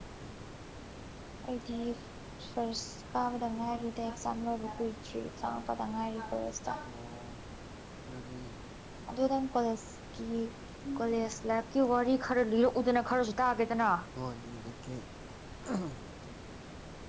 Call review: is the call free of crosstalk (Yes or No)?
Yes